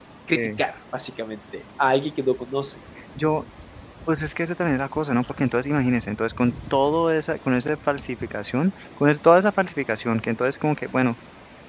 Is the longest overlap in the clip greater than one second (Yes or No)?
No